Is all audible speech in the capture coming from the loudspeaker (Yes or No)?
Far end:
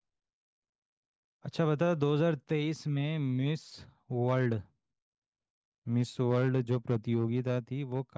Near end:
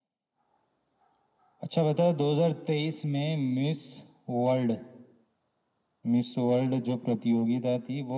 Yes